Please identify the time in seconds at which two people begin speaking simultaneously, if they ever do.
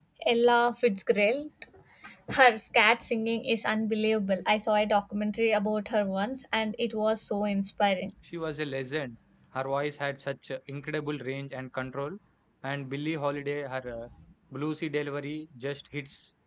none

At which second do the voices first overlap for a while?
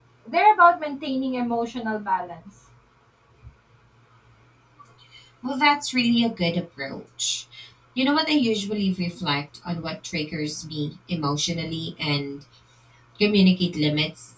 none

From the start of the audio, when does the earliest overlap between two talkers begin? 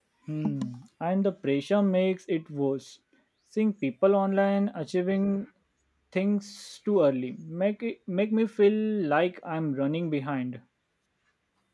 none

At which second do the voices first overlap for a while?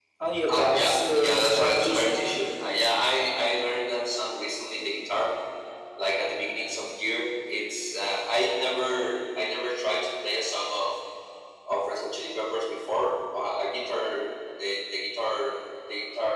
0.5 s

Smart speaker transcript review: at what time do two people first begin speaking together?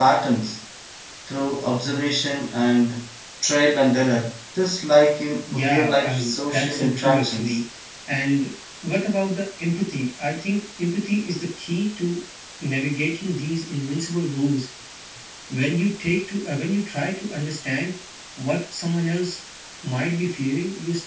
5.5 s

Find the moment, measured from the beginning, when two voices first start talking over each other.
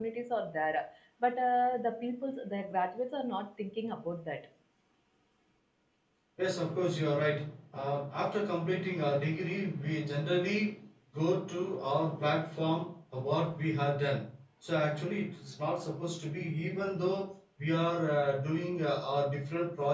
none

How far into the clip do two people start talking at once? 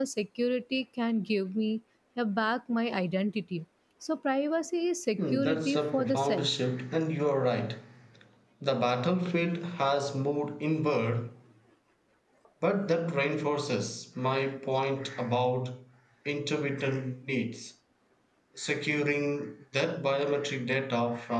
5.2 s

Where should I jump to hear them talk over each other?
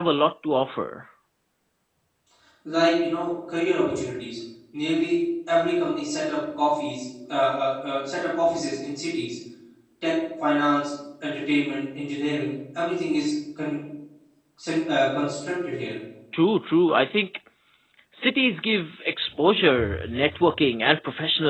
none

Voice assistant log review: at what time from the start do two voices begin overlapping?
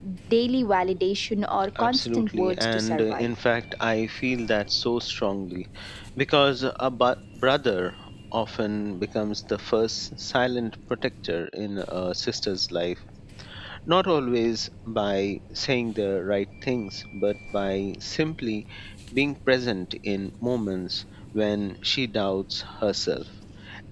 1.8 s

